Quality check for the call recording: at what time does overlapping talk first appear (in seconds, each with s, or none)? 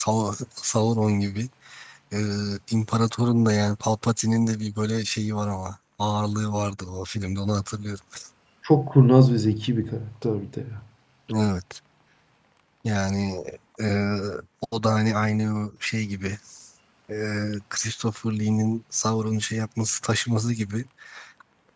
none